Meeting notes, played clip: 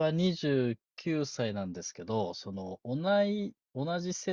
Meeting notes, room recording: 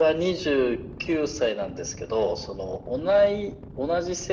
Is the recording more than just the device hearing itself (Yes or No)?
No